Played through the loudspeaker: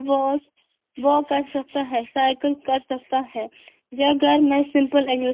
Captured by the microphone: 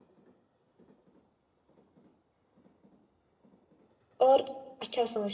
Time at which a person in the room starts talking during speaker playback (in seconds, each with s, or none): 4.3 s